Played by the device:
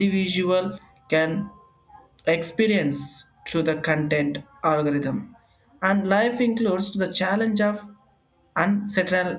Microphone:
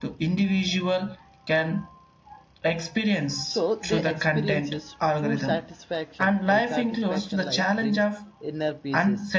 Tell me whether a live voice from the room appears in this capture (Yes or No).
Yes